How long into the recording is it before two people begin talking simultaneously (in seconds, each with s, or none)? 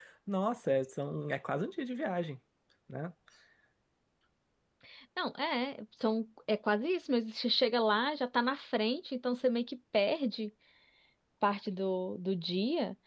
none